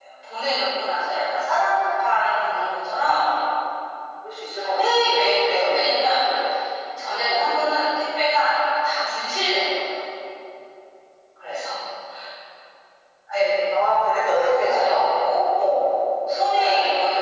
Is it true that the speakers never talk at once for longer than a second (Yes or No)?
No